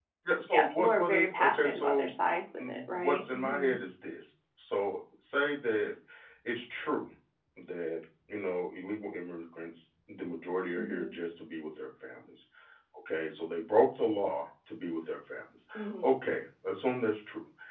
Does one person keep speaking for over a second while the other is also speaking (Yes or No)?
Yes